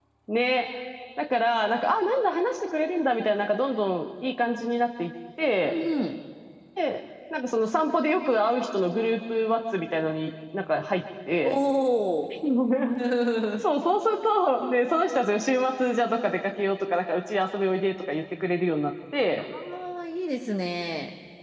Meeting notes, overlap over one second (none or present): none